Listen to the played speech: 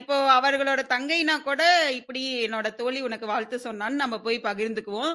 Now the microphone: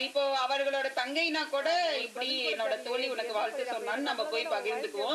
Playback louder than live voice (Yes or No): Yes